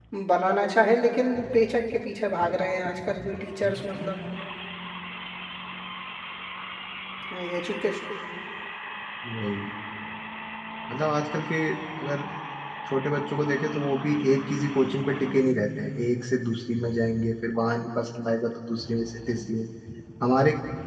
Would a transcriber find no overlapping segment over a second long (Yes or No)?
Yes